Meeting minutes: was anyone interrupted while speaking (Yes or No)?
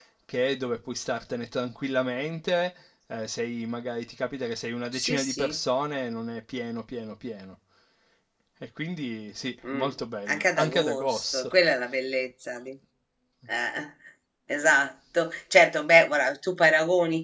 Yes